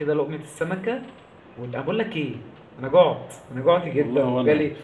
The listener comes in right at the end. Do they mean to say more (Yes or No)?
No